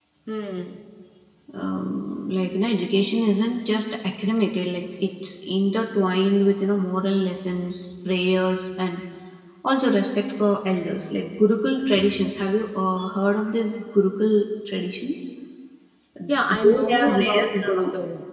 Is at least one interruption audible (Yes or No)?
Yes